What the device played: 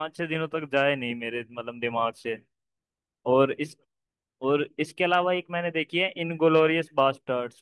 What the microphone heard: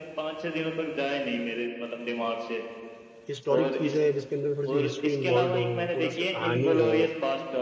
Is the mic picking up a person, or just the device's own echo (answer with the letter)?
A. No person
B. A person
B